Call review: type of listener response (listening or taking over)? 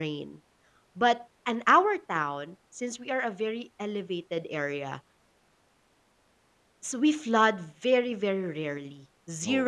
listening